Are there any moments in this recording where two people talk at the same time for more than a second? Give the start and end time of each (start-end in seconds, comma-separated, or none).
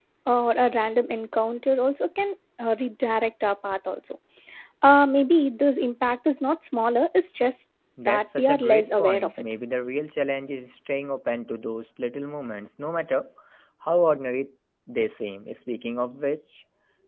8.0-9.3